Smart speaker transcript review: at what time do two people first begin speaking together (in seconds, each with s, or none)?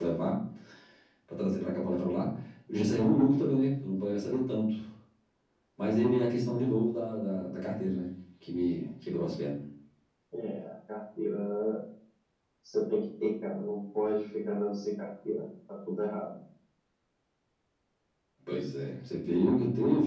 none